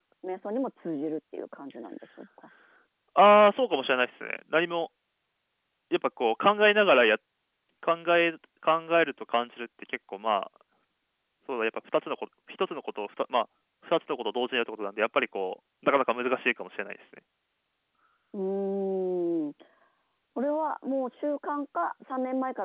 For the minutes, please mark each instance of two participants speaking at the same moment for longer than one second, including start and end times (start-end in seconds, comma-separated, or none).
none